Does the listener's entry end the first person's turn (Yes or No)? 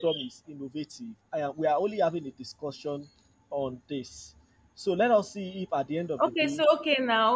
Yes